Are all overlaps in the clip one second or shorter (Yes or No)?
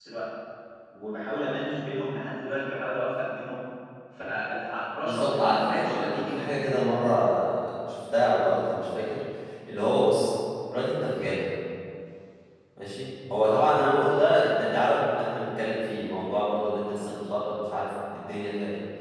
No